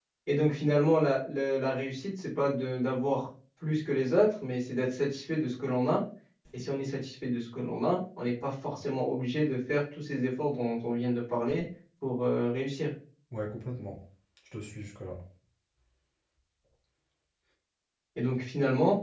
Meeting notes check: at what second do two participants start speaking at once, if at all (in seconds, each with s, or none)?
none